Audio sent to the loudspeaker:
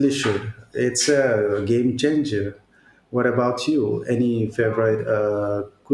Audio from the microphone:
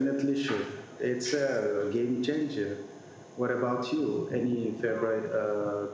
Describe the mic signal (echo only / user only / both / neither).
echo only